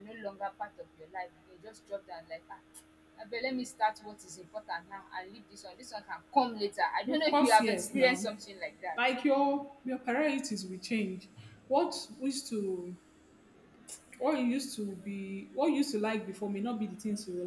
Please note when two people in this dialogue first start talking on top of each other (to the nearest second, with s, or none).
7 s